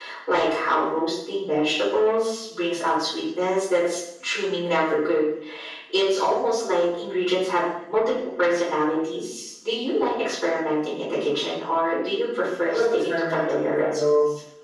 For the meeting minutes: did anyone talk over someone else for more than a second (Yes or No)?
Yes